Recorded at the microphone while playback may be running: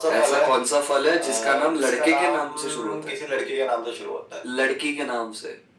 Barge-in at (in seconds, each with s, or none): none